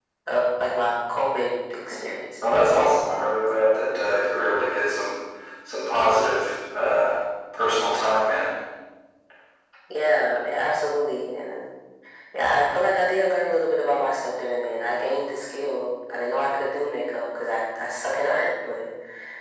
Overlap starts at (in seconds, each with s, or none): none